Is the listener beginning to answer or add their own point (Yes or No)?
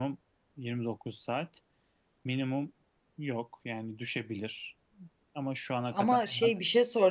Yes